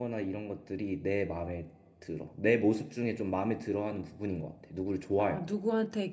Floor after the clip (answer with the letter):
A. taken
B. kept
A